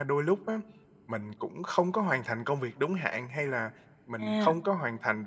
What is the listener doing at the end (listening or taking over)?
listening